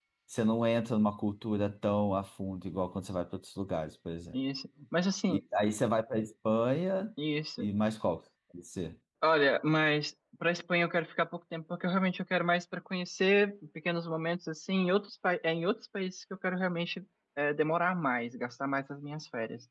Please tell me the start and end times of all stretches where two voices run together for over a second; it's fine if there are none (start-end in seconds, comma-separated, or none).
none